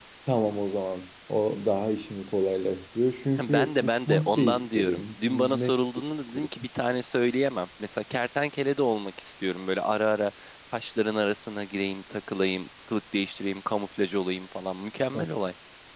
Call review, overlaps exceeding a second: present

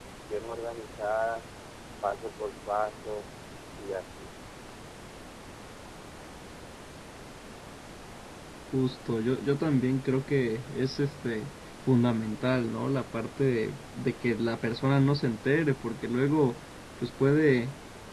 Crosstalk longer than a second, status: none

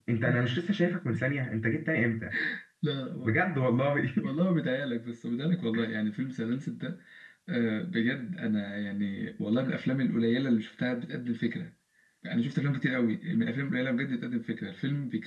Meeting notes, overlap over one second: none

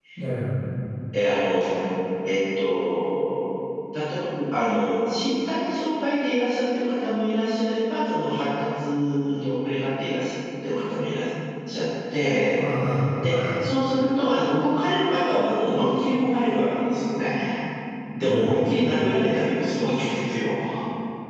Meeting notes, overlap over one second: none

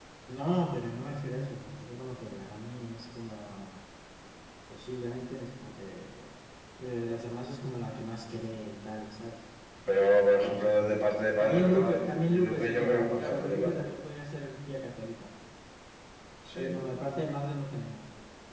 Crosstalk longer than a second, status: present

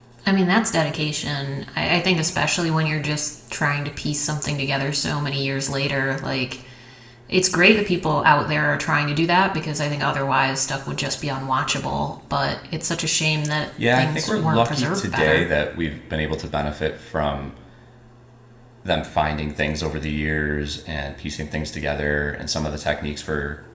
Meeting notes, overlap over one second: present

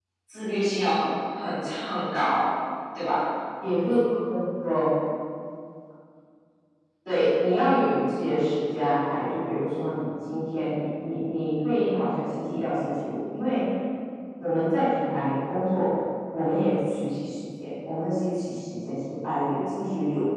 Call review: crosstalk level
none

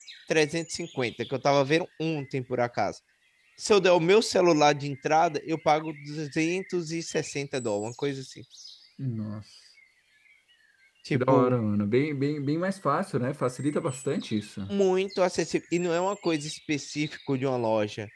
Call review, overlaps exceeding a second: none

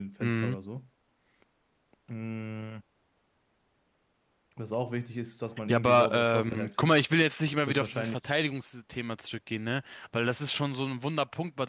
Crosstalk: present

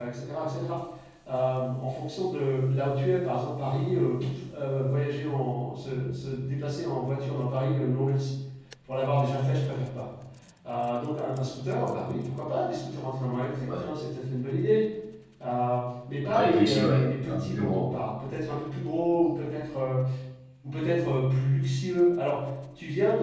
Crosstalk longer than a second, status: present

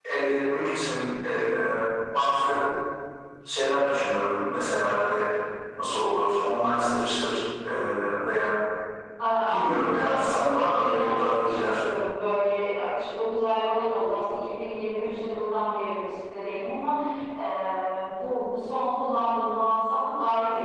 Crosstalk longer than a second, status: present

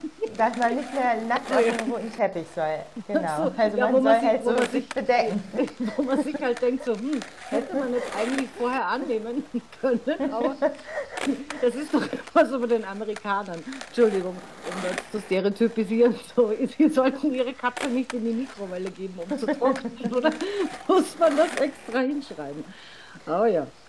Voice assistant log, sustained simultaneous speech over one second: present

